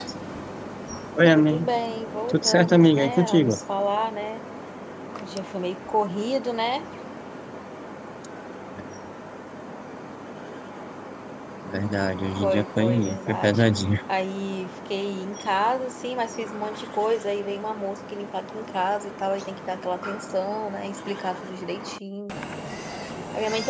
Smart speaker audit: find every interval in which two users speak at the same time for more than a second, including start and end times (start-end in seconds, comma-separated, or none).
2.3-3.6, 12.4-13.6